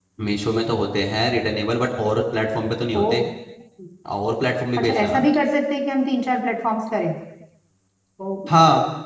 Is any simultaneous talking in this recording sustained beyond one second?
No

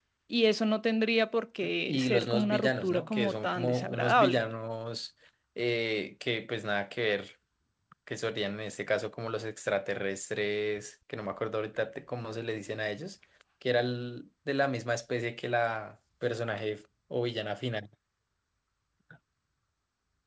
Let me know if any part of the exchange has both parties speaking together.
Yes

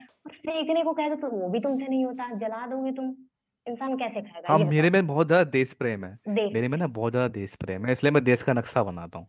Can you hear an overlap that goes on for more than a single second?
No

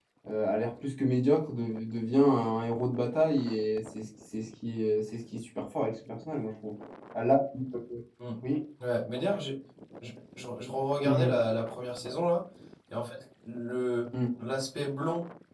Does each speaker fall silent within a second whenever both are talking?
Yes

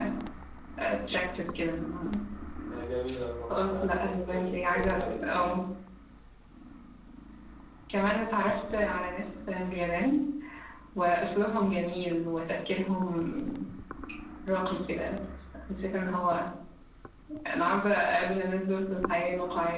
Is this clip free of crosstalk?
No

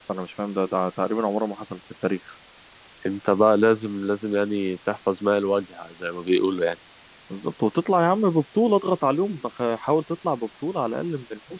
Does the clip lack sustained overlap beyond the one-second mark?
Yes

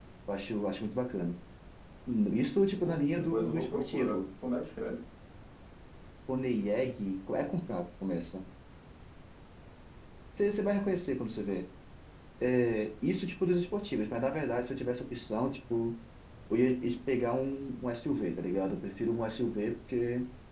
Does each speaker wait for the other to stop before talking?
No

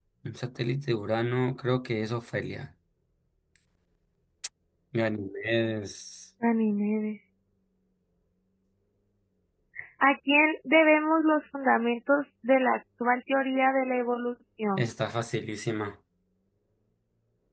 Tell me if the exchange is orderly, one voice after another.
Yes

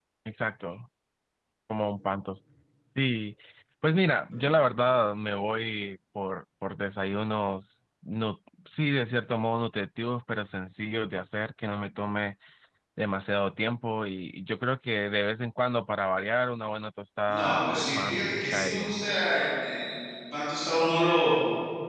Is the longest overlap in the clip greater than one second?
Yes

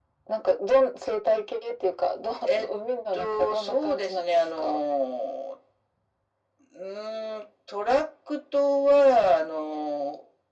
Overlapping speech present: Yes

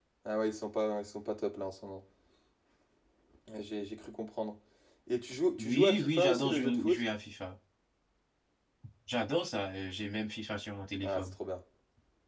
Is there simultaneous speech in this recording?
Yes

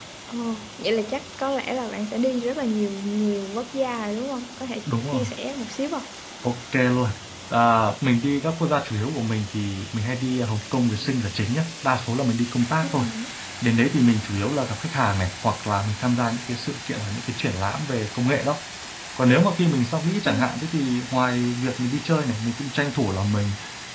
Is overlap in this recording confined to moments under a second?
Yes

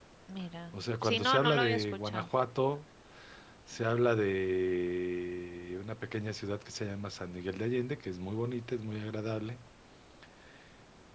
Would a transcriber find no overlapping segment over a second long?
No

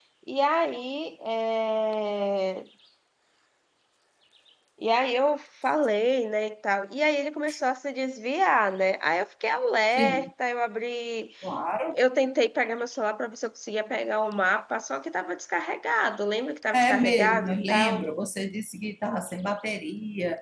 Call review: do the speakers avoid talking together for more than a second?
No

